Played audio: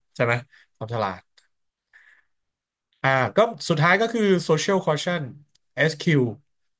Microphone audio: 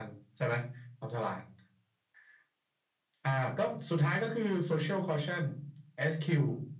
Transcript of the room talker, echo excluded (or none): none